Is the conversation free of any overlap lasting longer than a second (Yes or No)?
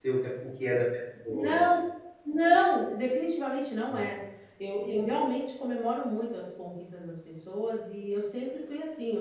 Yes